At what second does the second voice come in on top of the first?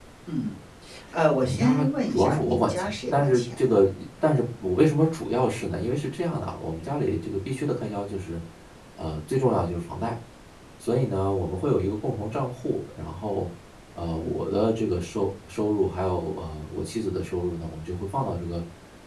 1.4 s

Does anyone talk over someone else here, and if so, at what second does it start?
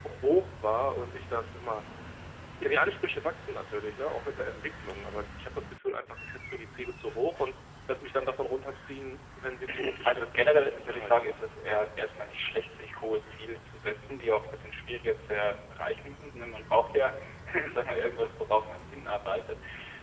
9.7 s

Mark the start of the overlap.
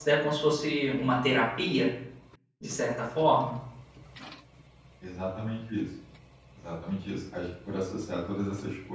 none

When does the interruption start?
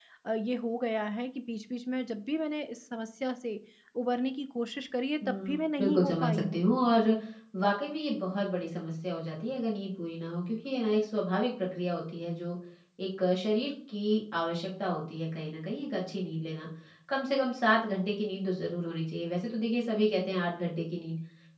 5.2 s

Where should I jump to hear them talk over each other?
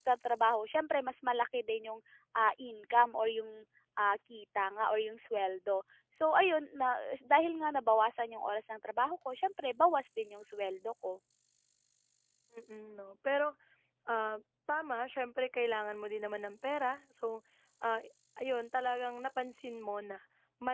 none

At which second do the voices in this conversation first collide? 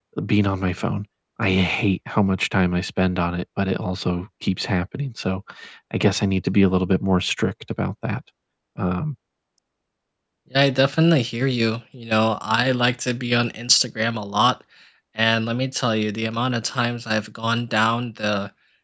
none

